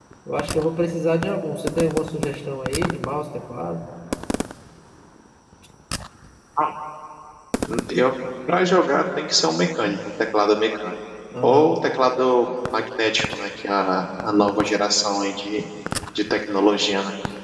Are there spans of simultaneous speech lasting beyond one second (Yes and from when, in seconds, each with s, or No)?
No